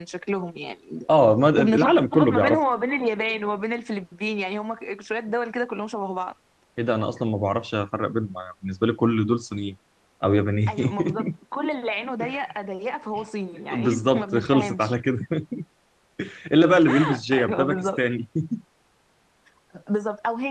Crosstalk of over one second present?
Yes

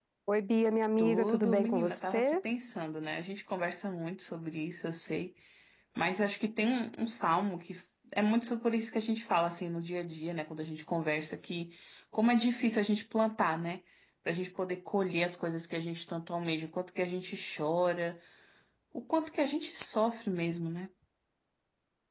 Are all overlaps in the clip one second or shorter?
No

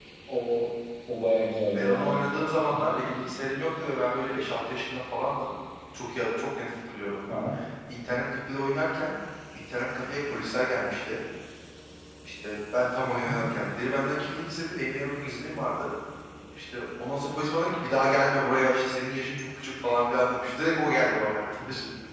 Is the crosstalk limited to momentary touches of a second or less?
Yes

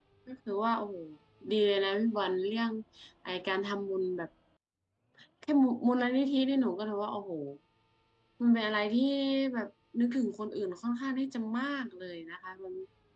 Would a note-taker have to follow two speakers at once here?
No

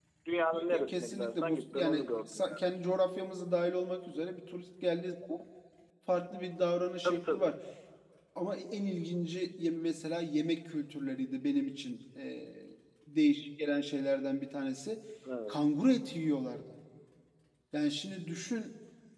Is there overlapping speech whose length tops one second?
Yes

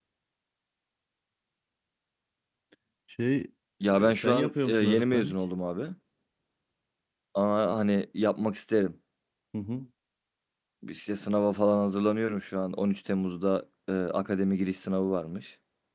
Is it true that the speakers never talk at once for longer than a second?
No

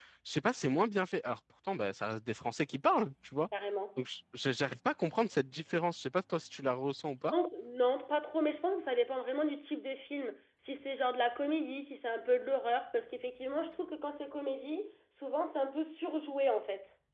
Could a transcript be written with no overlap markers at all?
Yes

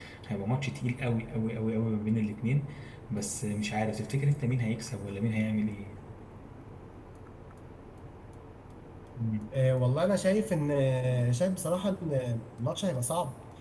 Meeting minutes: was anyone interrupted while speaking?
No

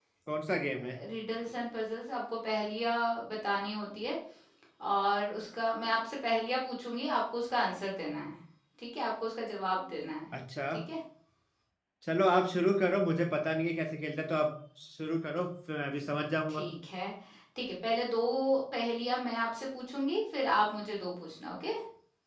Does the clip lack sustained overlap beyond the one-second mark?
Yes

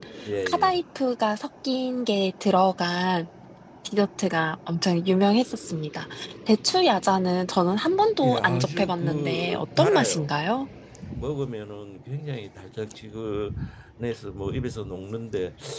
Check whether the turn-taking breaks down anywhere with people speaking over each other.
Yes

